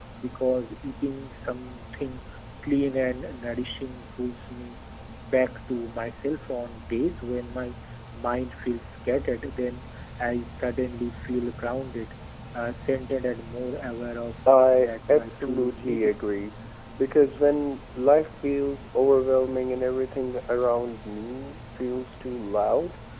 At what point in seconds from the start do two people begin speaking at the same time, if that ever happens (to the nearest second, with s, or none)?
14 s